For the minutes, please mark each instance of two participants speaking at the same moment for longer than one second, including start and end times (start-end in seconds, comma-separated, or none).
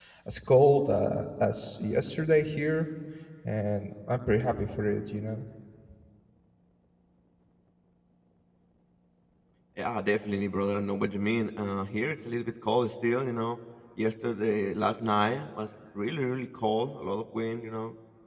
none